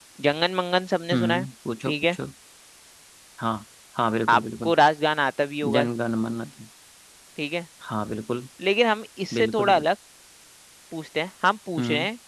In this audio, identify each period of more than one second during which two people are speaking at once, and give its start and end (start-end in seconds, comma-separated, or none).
none